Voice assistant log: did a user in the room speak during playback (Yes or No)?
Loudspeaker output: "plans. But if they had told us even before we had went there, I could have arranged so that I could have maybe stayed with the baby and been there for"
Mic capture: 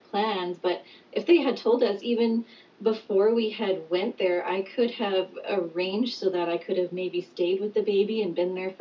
No